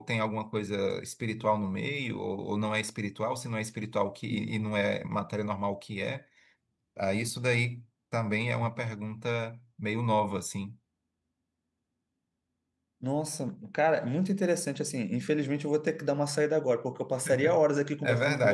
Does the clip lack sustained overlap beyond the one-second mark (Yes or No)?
Yes